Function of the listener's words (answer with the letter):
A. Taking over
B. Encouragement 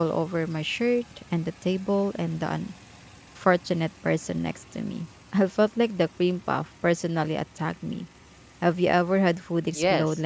A